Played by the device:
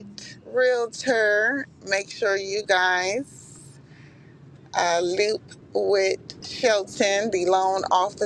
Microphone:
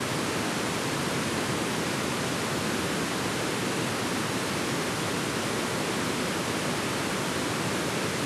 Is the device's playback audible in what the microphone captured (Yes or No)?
No